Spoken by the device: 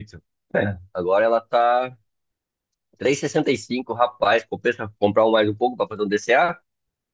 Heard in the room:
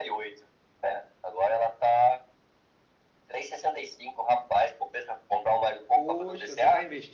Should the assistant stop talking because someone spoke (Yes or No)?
Yes